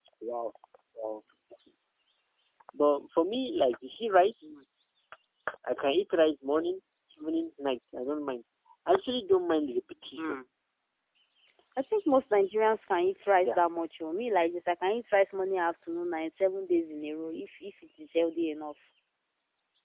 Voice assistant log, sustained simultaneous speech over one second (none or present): none